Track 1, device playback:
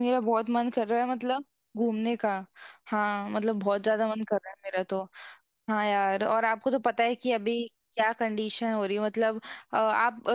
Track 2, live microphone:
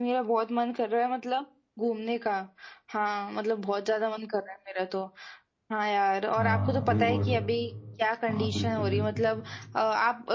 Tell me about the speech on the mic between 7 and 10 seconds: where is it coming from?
both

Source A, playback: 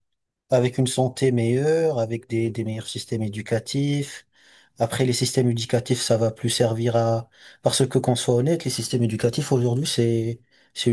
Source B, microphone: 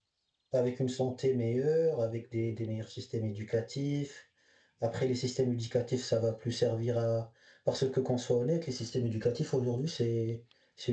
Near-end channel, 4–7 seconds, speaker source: echo only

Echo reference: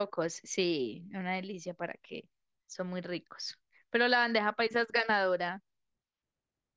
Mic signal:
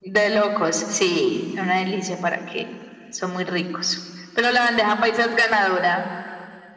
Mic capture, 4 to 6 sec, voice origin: echo only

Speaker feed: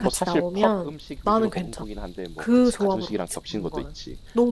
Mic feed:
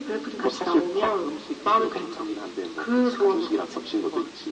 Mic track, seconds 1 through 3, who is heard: echo only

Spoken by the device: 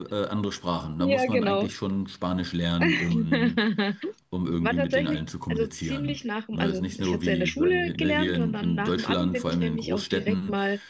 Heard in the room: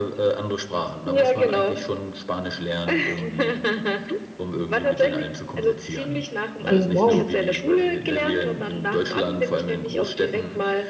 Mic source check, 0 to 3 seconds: echo only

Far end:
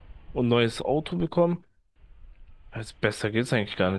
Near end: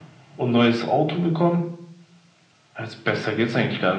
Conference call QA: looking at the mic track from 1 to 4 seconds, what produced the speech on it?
echo only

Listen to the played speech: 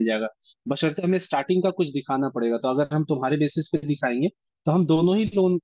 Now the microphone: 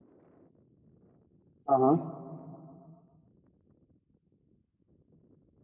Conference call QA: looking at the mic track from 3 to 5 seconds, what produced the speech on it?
neither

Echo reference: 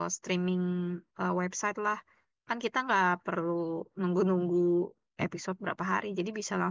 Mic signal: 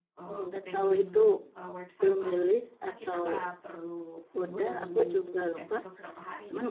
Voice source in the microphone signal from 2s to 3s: both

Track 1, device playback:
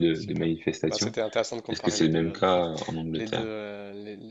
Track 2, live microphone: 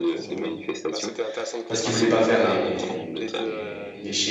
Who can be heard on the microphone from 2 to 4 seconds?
both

